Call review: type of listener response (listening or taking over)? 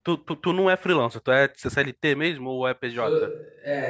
taking over